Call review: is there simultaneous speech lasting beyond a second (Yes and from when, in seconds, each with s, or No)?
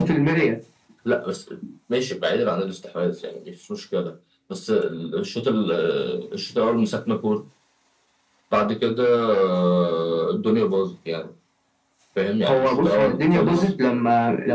Yes, from 12.4 s